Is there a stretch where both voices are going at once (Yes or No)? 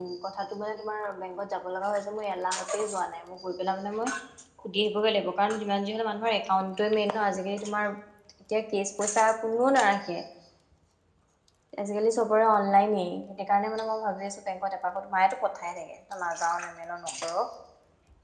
No